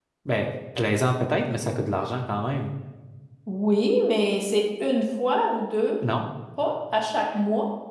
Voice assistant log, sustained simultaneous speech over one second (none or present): none